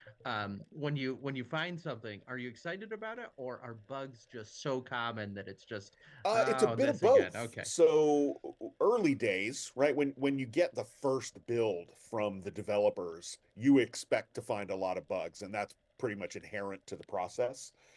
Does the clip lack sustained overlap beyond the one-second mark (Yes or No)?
No